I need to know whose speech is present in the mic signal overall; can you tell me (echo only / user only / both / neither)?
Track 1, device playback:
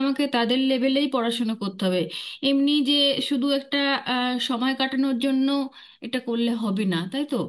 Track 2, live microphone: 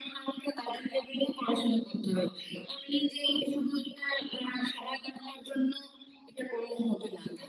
echo only